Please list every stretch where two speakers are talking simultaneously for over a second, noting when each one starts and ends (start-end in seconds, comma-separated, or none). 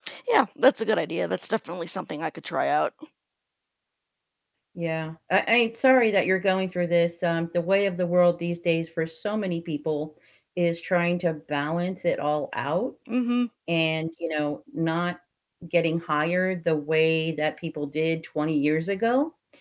none